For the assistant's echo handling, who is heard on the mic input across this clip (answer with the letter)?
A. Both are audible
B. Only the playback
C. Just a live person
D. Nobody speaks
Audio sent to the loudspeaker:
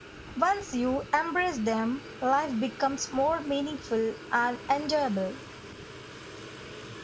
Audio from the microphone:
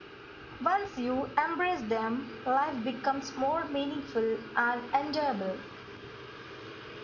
B